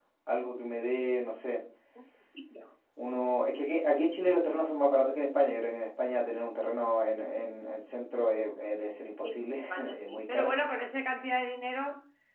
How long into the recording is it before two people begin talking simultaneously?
9 s

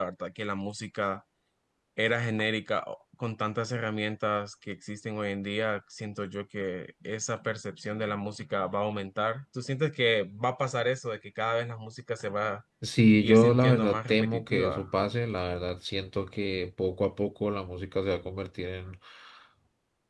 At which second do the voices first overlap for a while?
13 s

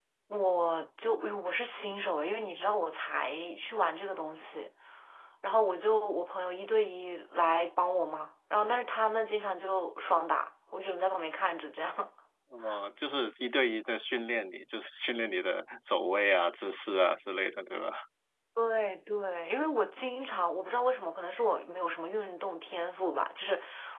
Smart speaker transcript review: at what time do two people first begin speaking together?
none

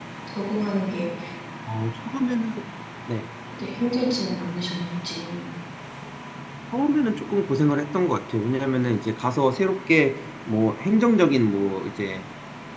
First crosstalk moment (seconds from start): none

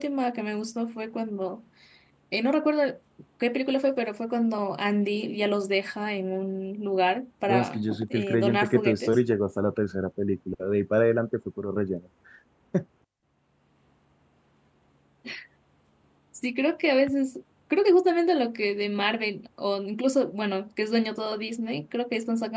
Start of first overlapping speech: 7 s

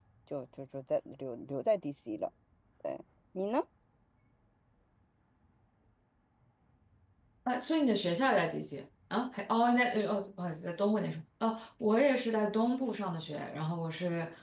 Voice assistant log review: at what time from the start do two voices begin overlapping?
none

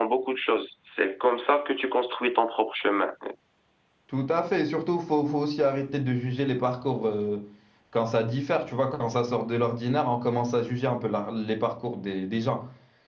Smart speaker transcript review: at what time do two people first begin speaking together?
none

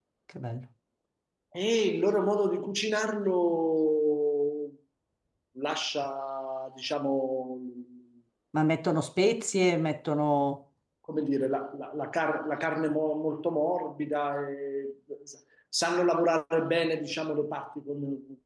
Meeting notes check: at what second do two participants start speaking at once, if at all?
none

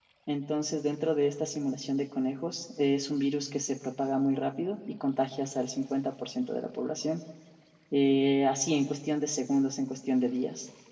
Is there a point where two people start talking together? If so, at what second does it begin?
none

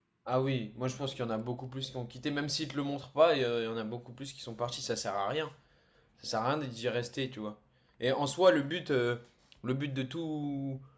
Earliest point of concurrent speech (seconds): none

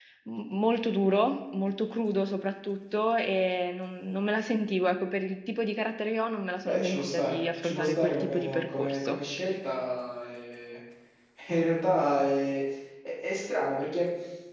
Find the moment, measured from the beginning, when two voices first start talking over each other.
7 s

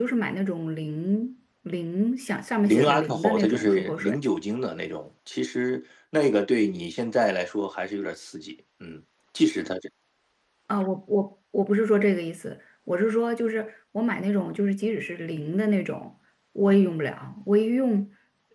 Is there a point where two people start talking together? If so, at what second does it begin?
3 s

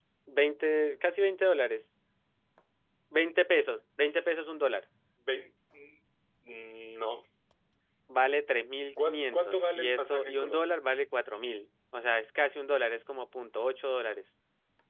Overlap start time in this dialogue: 9 s

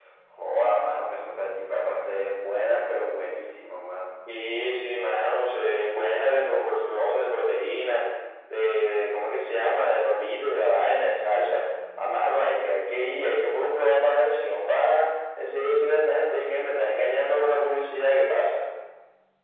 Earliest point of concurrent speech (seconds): none

